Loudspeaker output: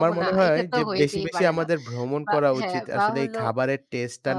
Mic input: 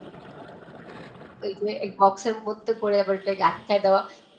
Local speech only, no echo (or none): ওই যে এক বক্সের মধ্যে করে আবার ওটাকে আটকায় দেওয়া।